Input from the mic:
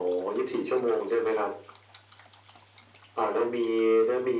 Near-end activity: none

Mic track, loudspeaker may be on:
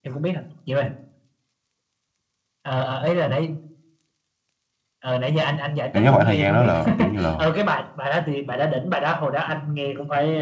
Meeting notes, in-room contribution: present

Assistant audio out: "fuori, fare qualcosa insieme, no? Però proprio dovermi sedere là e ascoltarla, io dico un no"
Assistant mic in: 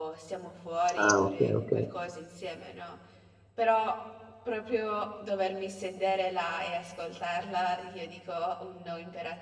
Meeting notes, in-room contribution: present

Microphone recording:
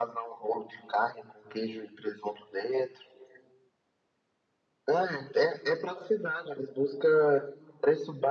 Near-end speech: none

